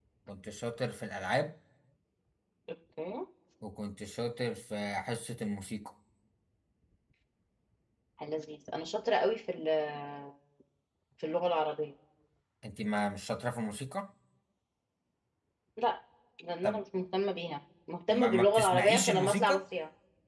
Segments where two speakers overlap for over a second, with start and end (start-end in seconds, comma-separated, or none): 18.1-19.6